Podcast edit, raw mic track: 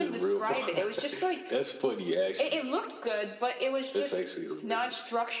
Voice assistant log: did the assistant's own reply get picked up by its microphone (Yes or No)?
Yes